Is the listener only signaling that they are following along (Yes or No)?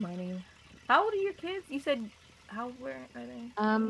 No